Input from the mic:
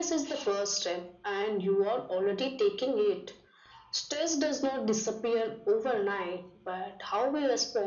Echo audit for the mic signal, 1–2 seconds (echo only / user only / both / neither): echo only